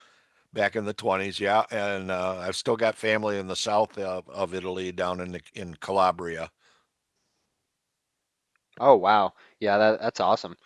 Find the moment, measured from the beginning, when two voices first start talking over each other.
none

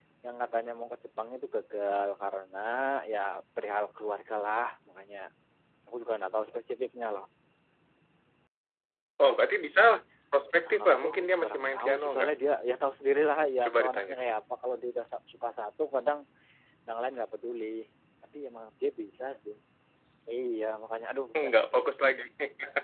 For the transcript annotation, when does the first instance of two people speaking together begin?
11 s

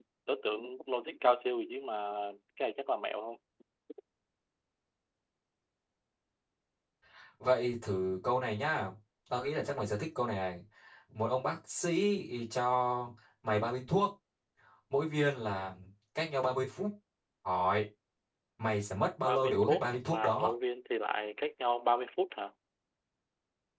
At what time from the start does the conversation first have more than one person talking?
19 s

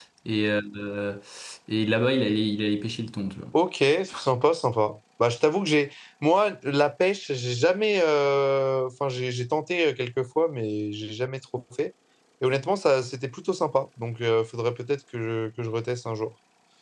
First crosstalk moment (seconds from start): none

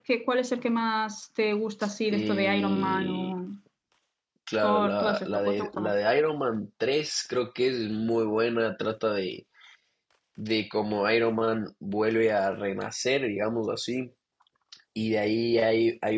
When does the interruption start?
2 s

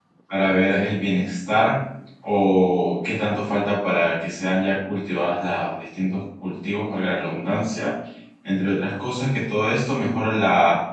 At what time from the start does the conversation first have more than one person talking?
none

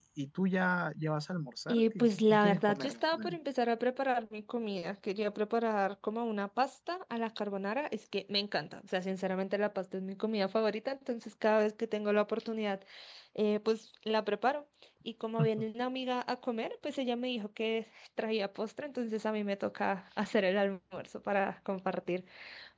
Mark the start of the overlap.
2 s

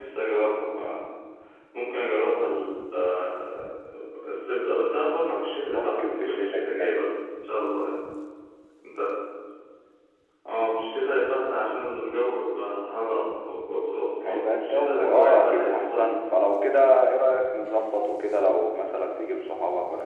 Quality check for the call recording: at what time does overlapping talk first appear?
6 s

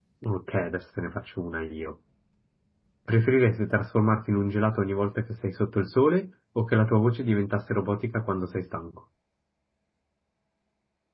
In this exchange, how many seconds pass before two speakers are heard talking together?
none

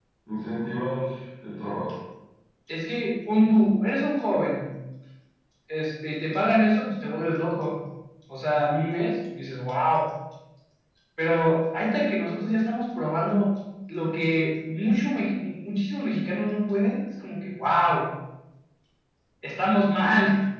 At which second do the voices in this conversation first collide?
none

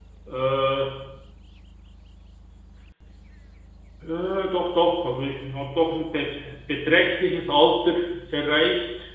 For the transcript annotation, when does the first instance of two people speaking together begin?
none

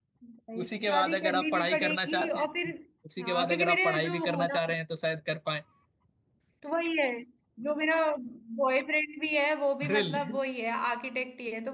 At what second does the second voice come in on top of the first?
1 s

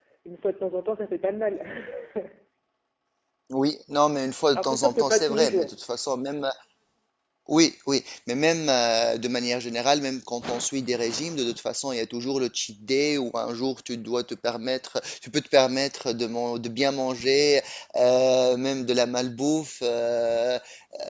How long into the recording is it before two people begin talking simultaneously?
5 s

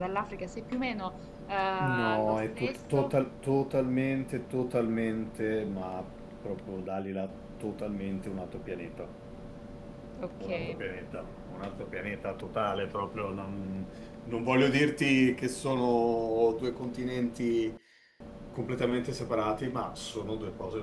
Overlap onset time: 2 s

